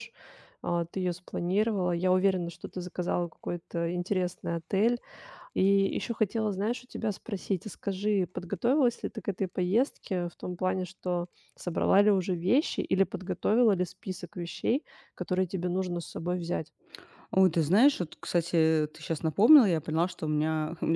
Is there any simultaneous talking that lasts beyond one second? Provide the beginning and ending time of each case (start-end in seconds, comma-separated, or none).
none